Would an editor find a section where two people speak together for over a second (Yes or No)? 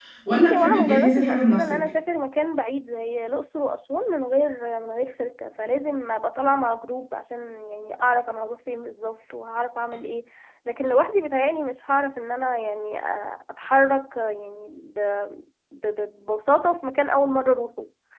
Yes